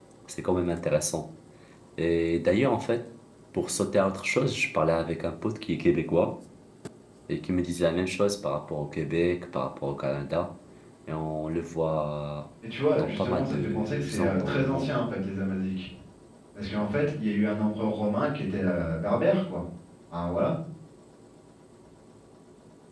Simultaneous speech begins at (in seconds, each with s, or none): 12.9 s